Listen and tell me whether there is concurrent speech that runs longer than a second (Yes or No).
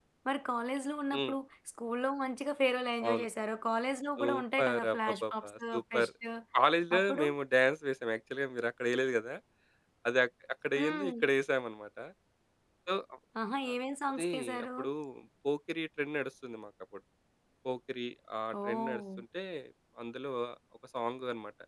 Yes